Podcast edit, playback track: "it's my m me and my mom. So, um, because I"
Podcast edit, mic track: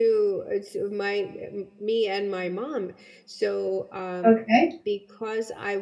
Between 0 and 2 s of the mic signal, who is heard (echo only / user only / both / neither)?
echo only